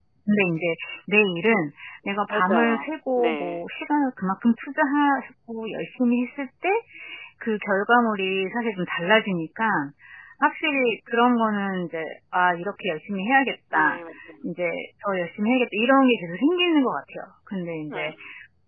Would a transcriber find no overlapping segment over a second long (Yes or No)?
No